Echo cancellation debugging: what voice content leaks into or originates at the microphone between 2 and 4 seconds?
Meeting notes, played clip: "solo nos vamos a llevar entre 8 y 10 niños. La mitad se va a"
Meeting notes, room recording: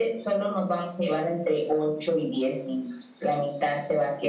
echo only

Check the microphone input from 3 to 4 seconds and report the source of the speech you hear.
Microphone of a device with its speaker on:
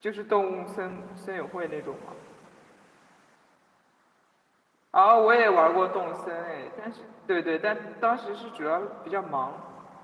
neither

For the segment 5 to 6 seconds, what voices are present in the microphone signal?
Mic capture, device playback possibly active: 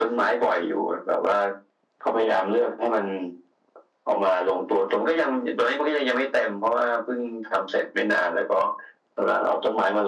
echo only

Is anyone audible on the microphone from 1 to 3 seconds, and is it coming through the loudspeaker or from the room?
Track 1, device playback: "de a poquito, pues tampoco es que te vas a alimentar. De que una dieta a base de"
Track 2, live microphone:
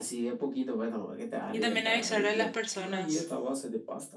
both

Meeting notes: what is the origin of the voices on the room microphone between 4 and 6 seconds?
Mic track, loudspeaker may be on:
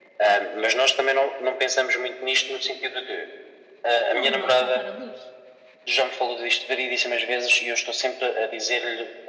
both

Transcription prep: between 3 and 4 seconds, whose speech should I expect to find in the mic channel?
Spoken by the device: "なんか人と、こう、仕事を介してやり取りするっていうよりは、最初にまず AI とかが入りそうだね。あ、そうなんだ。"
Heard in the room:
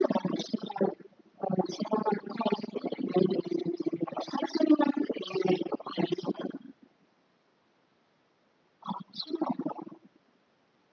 echo only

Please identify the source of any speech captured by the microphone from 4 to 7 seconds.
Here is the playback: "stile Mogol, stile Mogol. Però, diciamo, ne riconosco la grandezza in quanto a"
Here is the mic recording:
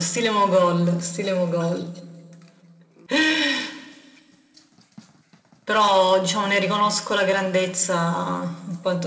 echo only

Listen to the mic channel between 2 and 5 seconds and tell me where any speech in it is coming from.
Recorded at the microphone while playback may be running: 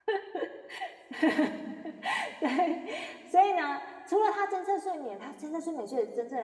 user only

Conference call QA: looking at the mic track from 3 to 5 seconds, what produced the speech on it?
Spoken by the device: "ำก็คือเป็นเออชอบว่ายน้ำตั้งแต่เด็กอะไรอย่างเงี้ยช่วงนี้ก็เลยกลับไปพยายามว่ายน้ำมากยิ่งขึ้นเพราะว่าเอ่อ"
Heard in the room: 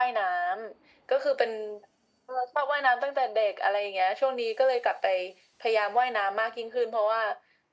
echo only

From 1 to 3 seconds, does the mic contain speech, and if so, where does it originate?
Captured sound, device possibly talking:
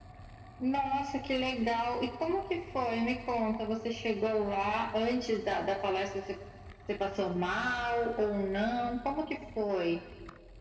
echo only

